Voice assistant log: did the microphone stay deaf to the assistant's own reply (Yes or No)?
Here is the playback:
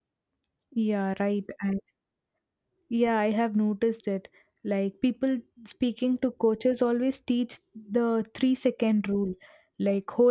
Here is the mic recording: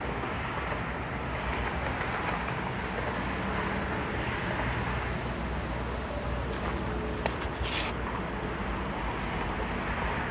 Yes